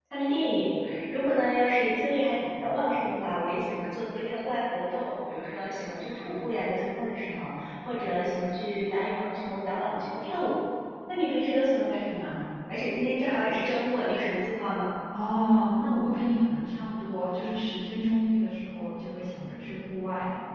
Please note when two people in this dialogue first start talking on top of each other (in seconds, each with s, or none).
none